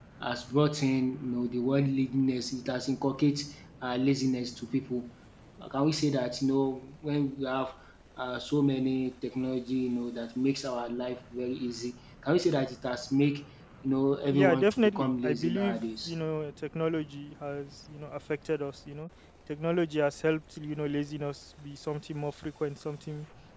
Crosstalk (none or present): present